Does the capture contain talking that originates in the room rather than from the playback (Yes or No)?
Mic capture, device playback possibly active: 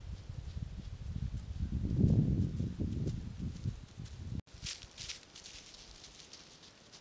No